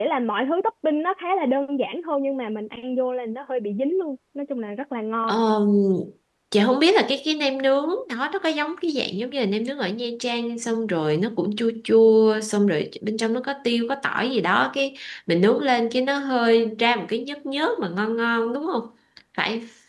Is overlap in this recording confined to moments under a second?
Yes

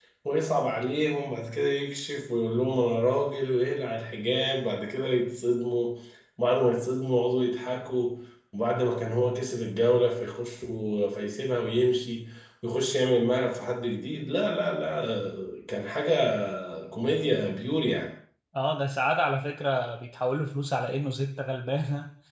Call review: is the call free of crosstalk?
Yes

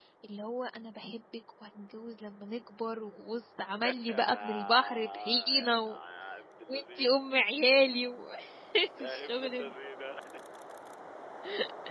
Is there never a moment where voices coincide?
No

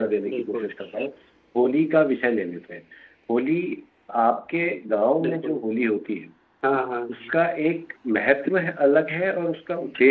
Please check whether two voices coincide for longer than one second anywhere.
No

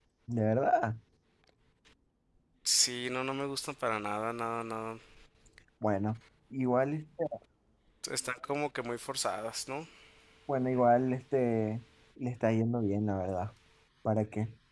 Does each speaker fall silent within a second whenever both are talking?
Yes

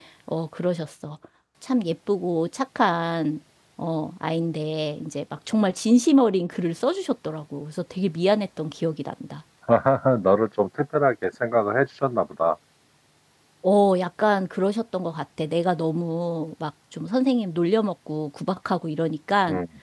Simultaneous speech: No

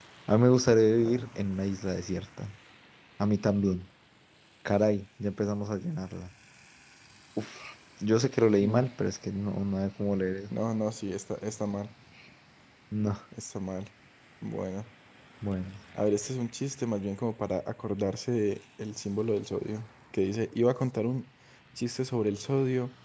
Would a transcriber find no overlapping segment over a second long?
Yes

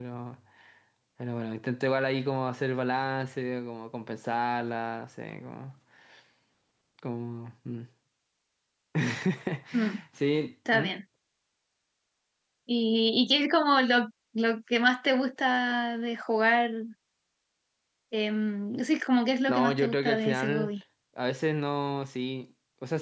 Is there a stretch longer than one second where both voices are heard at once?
Yes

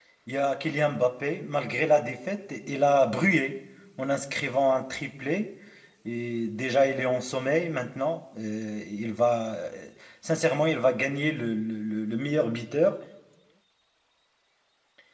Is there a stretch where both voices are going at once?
No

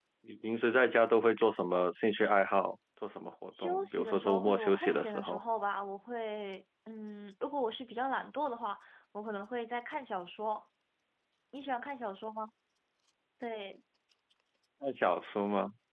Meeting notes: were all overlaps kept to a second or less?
No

